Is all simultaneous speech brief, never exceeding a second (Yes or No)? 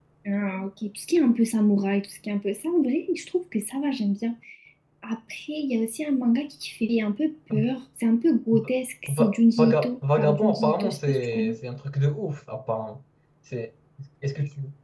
No